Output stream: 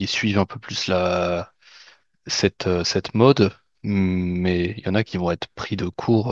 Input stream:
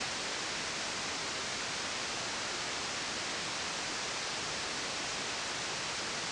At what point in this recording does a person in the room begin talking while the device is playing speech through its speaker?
none

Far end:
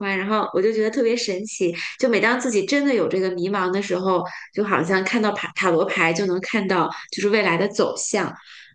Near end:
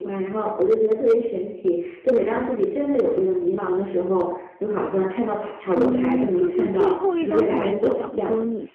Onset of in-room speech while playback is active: 5.7 s

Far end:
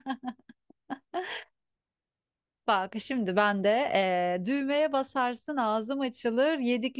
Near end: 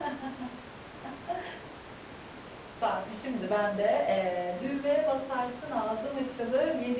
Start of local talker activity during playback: none

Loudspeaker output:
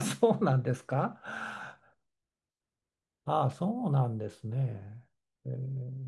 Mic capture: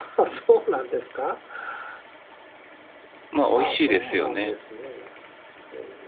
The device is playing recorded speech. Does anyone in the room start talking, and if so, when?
3.3 s

